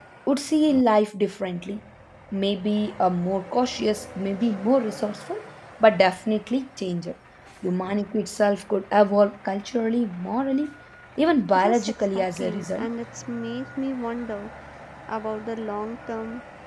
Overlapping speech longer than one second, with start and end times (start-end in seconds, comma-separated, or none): 11.6-12.9